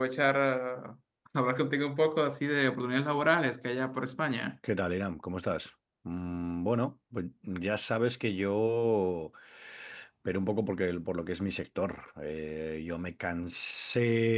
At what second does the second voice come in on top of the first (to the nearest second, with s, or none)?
none